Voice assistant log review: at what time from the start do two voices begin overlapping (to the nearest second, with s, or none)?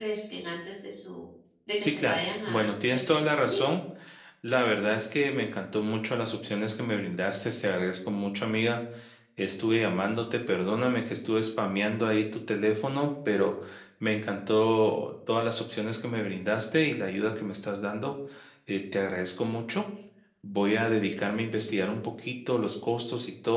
2 s